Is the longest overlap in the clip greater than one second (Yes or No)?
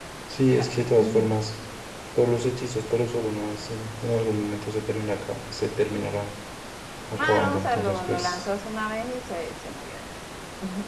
Yes